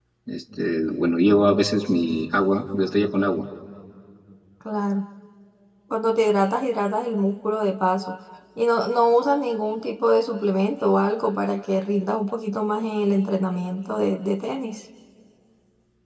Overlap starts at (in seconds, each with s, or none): none